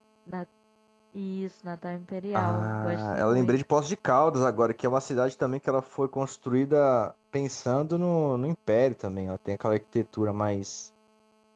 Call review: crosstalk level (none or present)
present